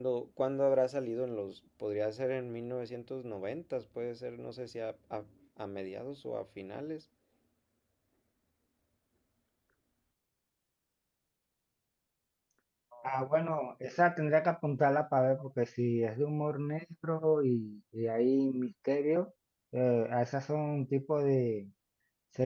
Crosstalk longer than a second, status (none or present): none